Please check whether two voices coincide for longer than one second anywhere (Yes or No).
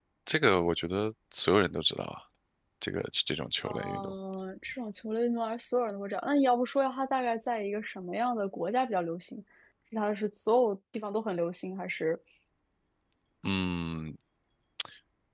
No